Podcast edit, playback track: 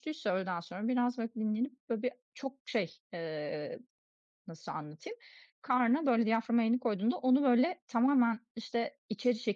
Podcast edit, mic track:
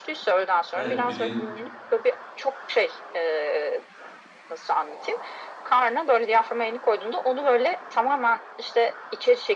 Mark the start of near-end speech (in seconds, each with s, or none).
0.8 s